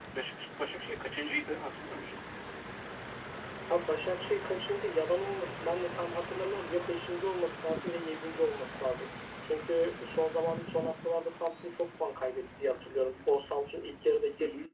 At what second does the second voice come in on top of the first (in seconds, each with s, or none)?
none